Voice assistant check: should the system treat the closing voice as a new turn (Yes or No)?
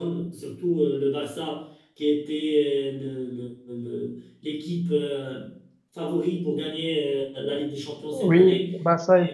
Yes